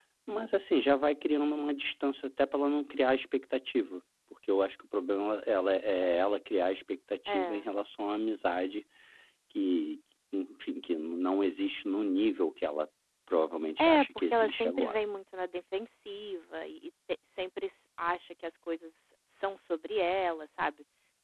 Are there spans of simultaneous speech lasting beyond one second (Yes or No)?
Yes